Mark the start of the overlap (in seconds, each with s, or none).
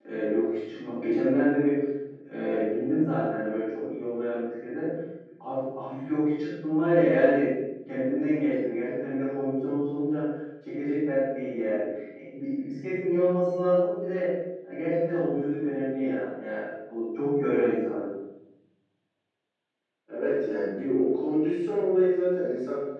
none